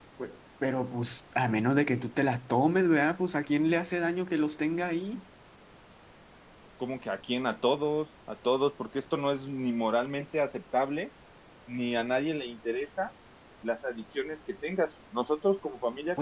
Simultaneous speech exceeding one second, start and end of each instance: none

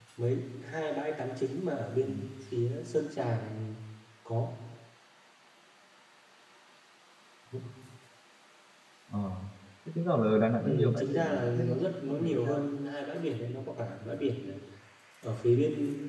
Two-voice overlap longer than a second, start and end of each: 10.6-12.7

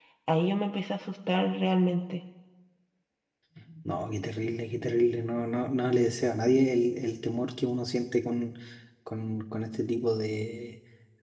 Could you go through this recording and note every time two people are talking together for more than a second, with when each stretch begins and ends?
none

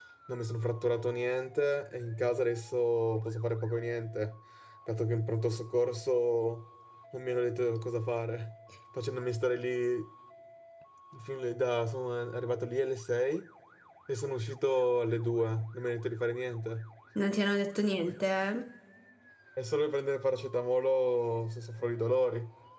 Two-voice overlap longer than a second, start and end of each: none

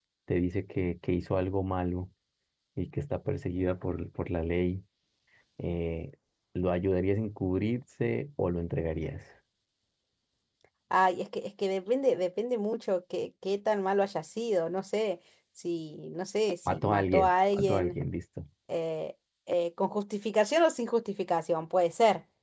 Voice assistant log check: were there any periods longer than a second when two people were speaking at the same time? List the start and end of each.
16.7-18.0

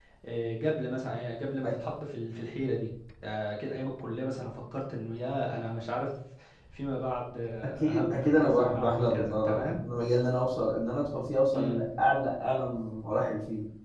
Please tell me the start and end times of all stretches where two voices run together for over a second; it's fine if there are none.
7.8-9.8

